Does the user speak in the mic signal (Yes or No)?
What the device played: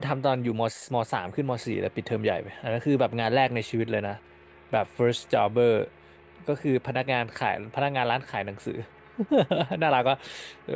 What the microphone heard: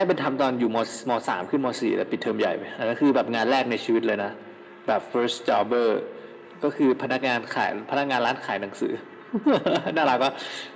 No